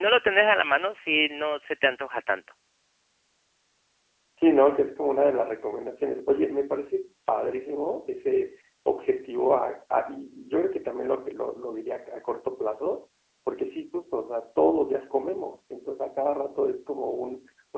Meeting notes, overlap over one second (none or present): none